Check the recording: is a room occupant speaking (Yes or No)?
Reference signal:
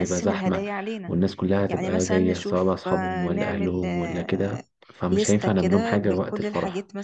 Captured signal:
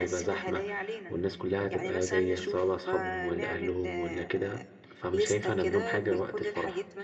No